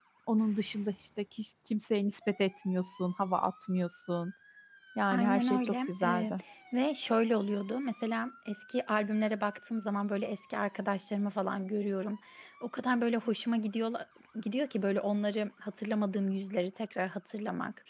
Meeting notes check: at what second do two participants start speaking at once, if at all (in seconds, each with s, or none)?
5.1 s